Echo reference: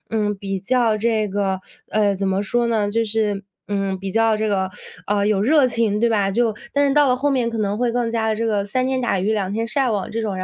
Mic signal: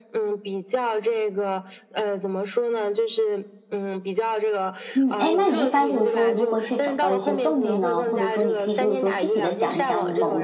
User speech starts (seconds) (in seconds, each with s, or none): 5.0 s